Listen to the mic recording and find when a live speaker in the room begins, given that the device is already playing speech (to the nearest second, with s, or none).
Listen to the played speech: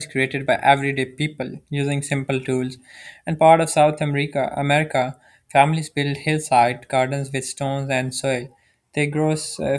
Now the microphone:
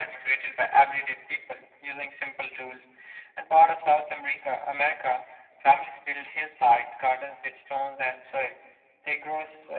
none